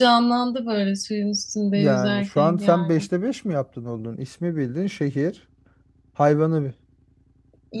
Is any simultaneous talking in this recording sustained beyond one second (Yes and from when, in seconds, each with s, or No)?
Yes, from 1.8 s